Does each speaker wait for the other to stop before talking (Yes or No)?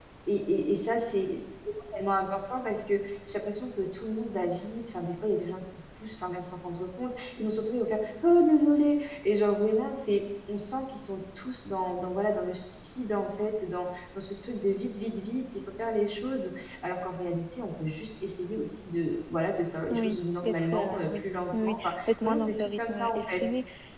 No